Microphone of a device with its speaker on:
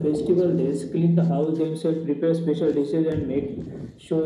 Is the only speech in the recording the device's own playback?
Yes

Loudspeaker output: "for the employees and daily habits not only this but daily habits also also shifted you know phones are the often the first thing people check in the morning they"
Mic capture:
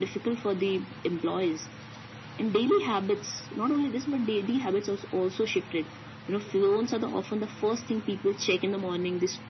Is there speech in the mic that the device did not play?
No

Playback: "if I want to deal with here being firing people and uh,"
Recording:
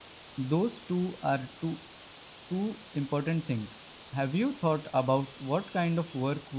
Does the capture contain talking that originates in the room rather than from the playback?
Yes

